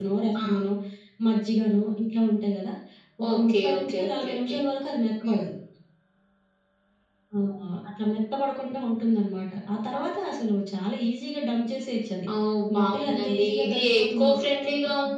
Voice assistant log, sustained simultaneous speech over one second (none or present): present